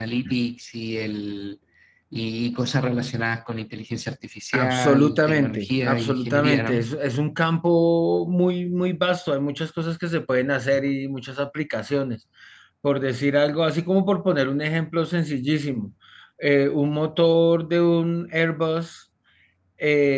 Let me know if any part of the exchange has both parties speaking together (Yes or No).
Yes